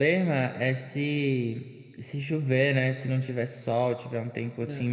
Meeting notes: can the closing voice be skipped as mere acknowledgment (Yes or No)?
Yes